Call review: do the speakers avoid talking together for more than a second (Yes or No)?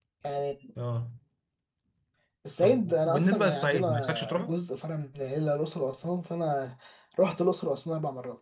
No